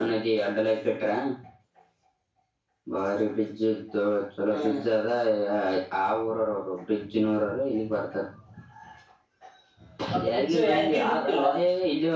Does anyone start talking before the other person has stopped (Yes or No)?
Yes